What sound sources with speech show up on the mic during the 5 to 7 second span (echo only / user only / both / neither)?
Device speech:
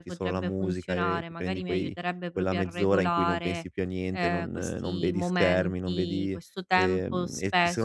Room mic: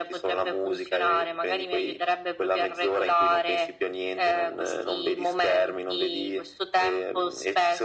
echo only